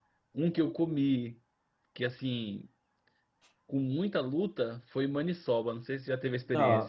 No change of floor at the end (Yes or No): No